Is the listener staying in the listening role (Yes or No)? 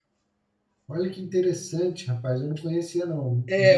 No